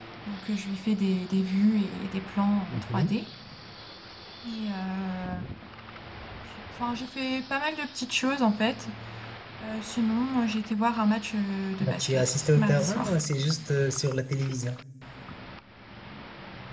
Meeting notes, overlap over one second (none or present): present